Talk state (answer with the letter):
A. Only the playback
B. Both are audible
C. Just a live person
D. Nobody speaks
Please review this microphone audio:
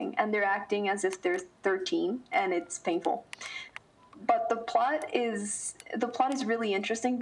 A